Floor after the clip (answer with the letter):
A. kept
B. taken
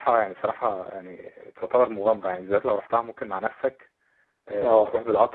A